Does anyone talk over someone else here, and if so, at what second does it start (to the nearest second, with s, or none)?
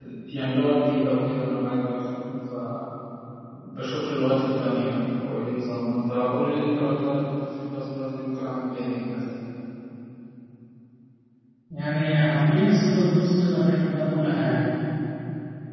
none